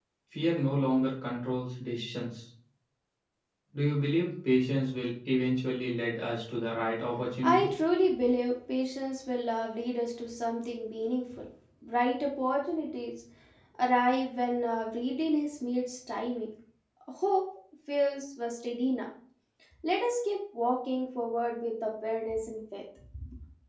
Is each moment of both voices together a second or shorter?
Yes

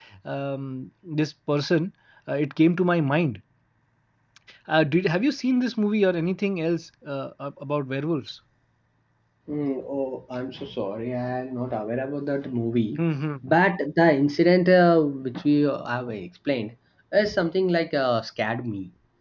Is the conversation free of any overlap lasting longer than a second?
Yes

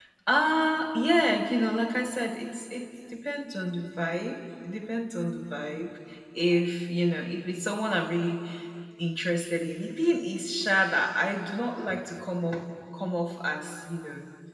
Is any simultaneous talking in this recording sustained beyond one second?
No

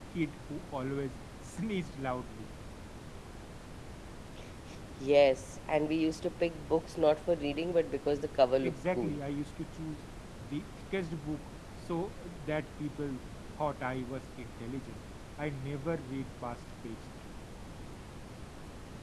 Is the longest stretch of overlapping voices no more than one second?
Yes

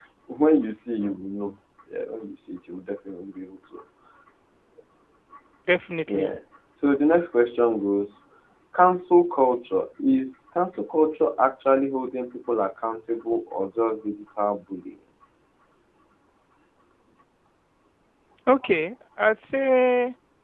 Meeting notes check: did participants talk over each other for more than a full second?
No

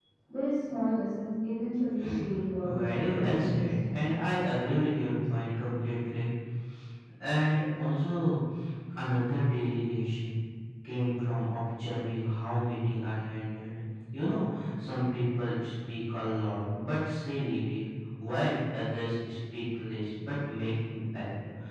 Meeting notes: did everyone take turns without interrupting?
No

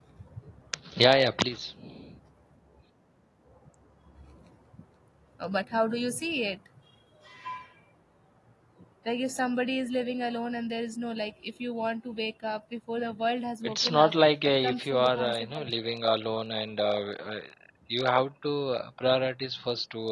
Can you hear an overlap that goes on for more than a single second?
Yes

